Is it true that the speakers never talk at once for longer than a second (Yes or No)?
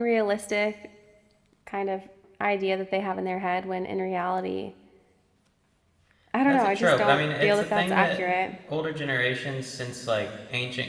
No